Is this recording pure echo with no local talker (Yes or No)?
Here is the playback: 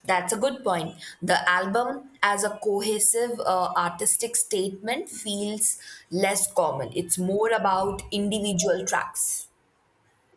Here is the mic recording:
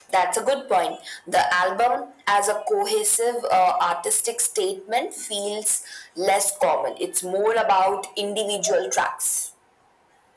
Yes